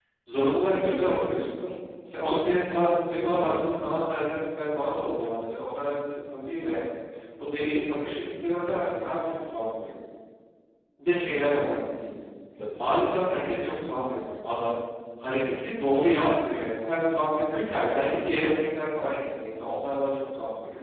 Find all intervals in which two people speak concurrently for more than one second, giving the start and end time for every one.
none

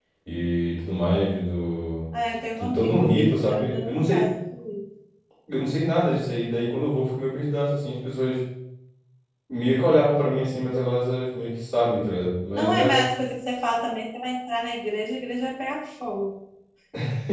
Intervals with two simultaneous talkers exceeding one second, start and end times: 2.6-4.2

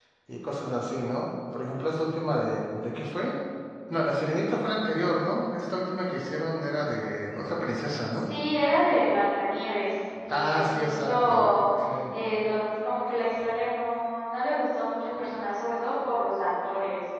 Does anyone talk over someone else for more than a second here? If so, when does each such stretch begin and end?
10.3-11.5

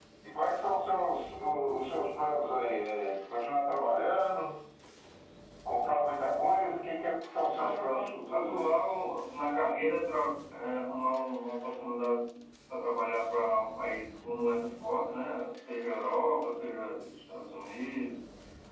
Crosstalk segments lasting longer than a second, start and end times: 7.6-8.8

